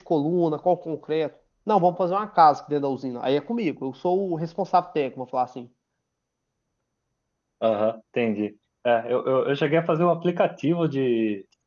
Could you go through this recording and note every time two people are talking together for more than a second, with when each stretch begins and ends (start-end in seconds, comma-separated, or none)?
none